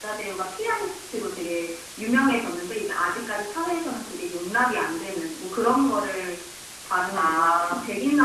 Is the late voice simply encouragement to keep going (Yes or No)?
Yes